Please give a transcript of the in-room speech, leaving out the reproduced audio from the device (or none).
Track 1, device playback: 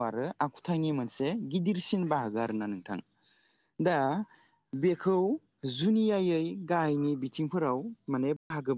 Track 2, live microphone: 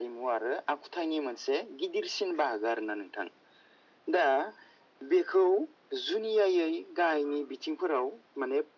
none